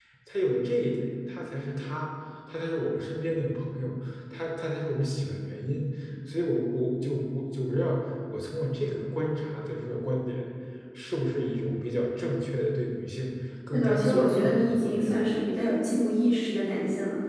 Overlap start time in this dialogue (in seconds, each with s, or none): 13.7 s